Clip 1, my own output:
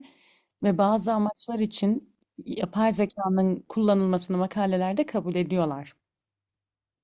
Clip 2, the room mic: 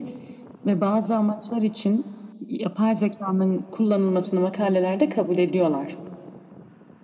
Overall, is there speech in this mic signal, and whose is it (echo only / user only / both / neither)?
echo only